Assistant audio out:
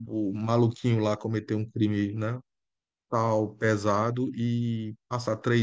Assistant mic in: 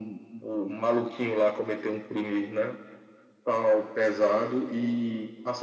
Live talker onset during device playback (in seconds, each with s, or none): none